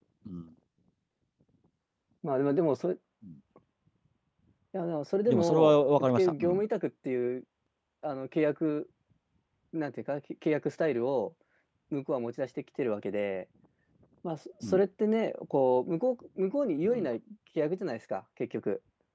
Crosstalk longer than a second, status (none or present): present